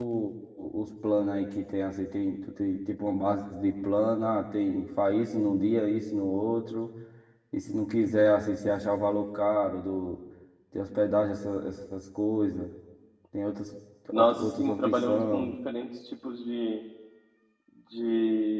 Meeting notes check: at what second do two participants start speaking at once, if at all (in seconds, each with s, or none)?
14.1 s